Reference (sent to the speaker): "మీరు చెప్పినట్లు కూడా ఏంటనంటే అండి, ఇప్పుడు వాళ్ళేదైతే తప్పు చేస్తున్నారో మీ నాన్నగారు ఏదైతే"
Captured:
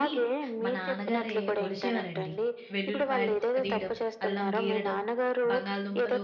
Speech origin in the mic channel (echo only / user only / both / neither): both